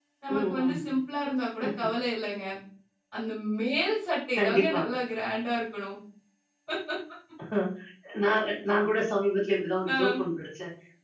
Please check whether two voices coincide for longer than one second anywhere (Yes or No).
No